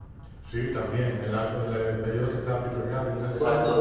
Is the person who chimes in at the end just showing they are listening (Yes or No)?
No